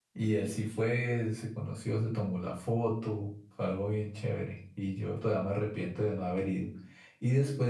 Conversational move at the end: listening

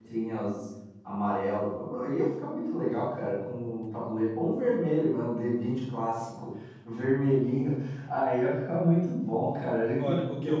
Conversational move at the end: taking over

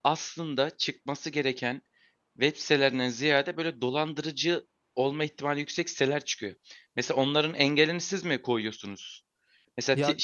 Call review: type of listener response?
listening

